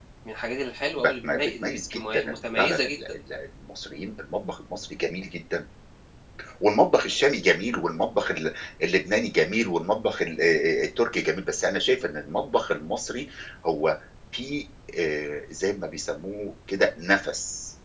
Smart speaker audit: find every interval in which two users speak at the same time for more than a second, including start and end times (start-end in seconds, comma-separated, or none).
1.0-3.0